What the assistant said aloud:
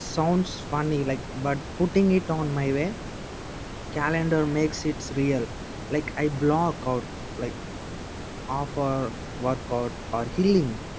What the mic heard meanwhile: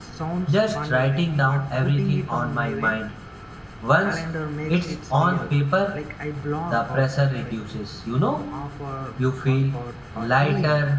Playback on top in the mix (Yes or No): No